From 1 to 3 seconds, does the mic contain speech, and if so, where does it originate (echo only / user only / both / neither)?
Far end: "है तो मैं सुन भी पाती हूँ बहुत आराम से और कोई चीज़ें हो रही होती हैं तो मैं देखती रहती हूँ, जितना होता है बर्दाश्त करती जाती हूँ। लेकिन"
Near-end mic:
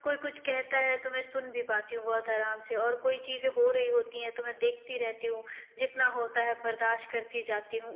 echo only